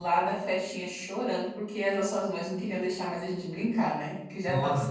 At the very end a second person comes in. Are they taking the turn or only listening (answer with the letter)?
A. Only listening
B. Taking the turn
B